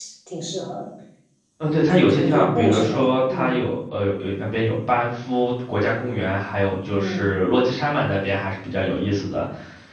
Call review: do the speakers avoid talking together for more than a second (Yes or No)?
No